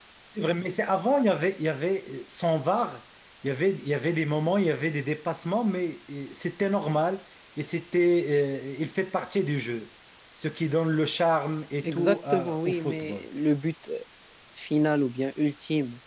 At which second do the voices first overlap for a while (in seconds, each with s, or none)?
11.8 s